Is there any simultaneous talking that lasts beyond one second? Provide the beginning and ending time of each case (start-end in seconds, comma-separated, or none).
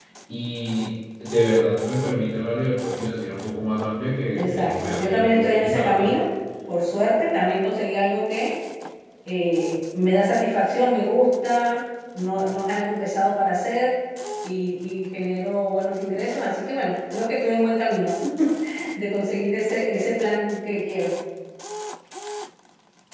4.4-6.1